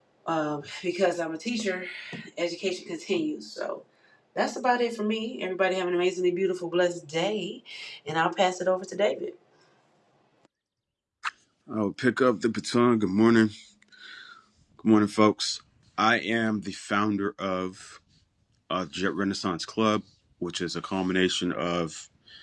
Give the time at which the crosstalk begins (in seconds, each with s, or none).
none